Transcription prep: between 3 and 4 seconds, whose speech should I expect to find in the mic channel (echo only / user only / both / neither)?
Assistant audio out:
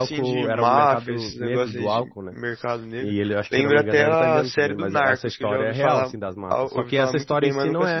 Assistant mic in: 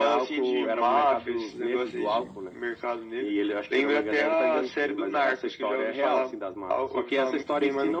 echo only